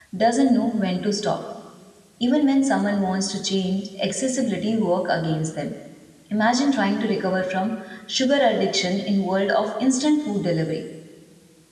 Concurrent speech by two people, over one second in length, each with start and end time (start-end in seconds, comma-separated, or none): none